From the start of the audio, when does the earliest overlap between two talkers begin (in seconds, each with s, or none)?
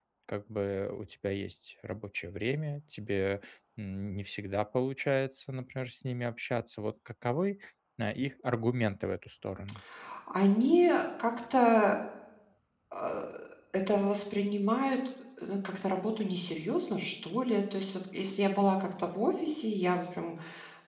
none